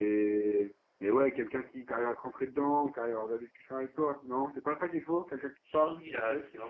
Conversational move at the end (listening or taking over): taking over